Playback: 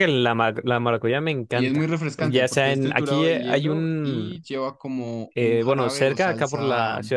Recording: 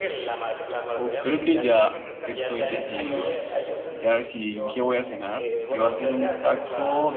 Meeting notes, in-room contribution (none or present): present